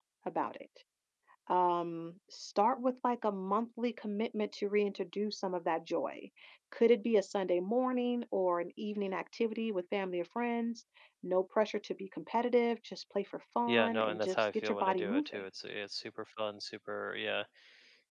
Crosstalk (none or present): present